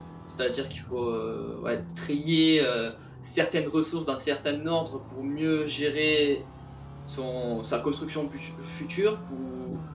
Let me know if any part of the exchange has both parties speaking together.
No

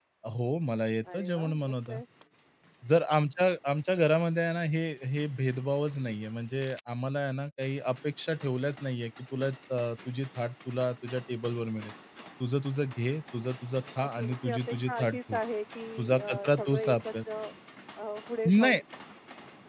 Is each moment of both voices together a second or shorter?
No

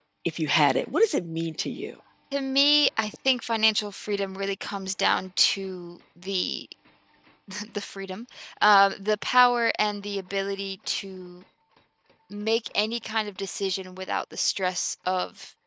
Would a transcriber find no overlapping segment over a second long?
Yes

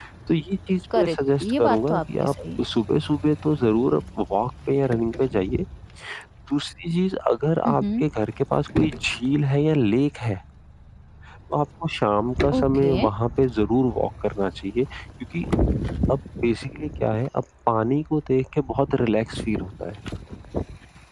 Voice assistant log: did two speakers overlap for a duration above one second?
Yes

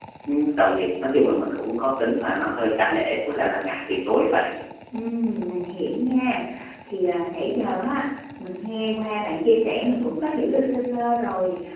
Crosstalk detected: No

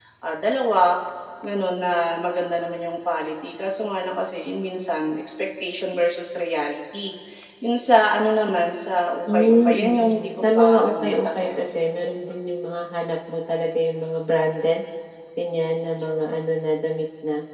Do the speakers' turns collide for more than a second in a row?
Yes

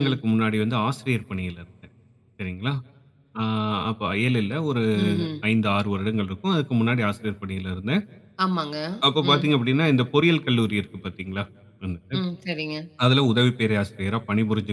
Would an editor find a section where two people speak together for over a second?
No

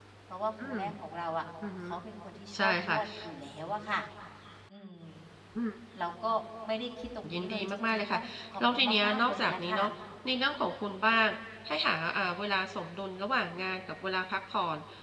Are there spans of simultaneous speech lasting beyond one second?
Yes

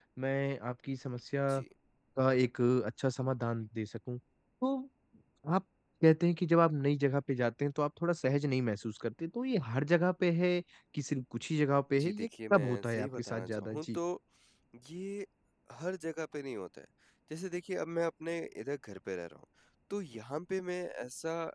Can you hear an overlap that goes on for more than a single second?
Yes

